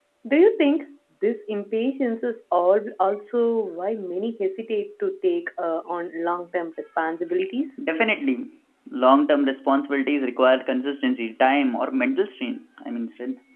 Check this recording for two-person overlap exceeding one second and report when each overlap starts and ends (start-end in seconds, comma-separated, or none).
none